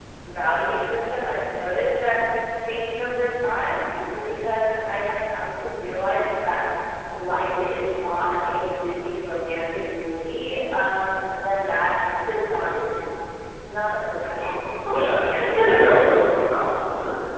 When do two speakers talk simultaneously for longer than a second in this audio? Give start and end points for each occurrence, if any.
14.9-16.2

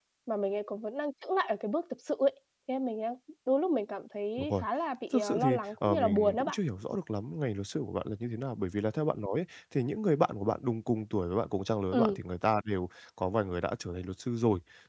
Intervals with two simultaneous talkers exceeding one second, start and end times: 5.1-6.6

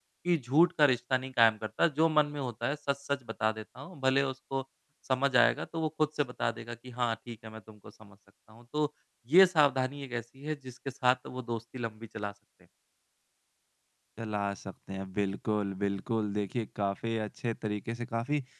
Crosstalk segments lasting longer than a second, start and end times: none

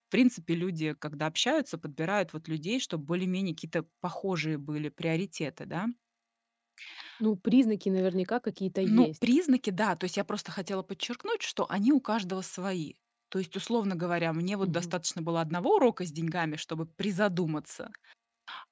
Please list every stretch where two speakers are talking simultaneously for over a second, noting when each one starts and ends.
none

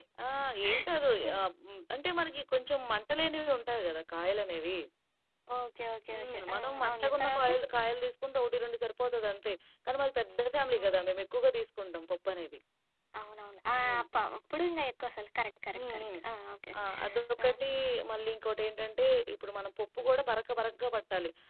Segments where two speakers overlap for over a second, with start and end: 6.1-7.5

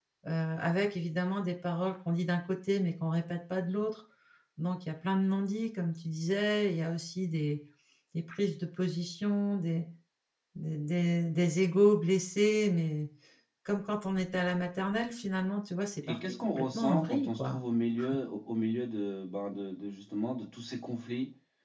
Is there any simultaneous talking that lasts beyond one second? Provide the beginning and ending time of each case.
16.0-17.6

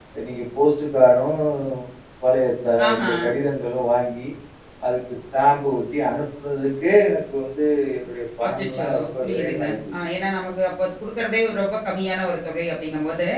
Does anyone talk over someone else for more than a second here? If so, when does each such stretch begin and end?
8.5-9.9

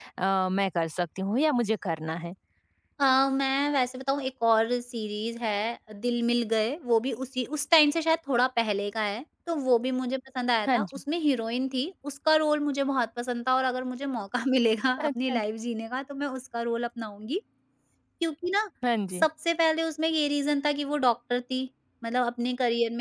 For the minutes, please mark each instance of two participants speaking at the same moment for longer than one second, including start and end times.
none

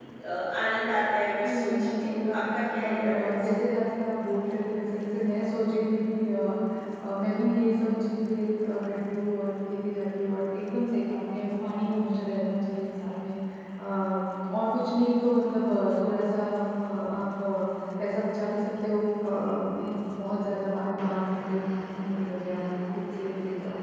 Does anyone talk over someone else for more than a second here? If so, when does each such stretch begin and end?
1.4-3.4

